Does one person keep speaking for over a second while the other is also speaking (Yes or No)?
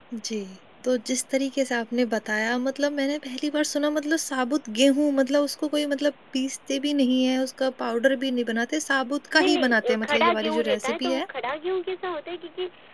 Yes